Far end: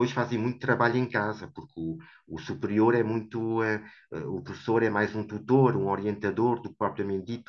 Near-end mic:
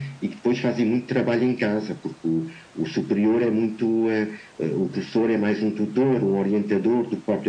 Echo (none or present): present